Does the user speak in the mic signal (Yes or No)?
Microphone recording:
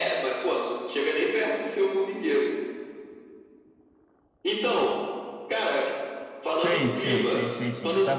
Yes